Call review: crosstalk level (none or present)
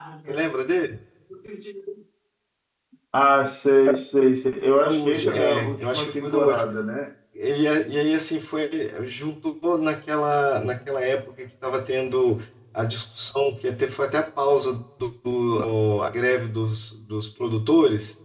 present